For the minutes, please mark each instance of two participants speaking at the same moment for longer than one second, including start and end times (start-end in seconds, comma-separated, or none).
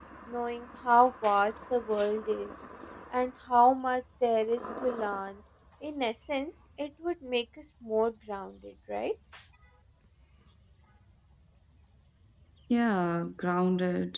none